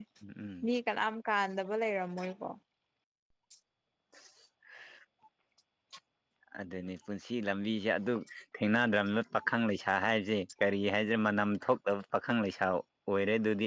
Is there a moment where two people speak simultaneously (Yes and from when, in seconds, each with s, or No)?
No